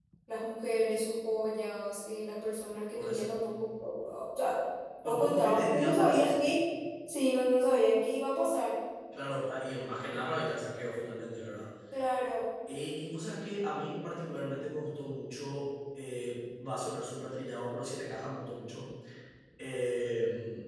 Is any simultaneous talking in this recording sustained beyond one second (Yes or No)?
Yes